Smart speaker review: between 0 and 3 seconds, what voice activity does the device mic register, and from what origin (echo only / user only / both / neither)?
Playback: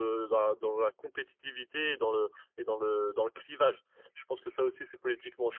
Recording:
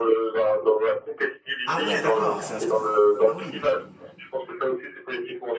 both